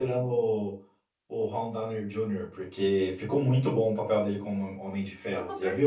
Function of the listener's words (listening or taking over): taking over